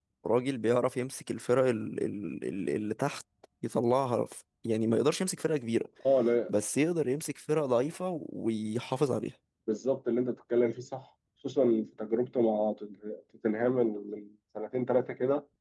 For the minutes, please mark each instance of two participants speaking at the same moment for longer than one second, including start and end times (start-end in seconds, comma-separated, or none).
none